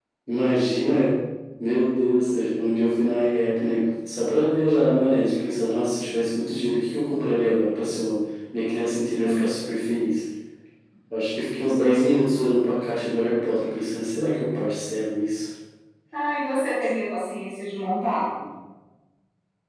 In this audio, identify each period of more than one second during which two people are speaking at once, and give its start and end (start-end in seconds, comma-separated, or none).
none